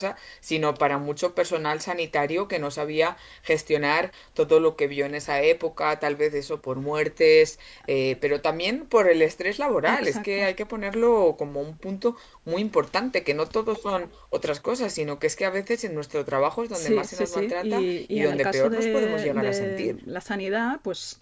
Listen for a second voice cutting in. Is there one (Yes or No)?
Yes